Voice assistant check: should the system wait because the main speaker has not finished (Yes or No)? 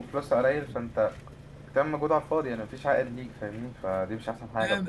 No